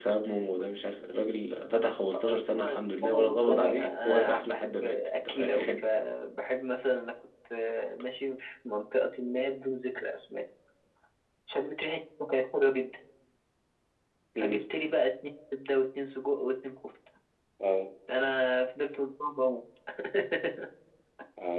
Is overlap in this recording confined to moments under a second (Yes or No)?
No